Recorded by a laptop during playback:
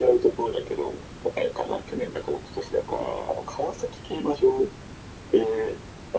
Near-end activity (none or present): none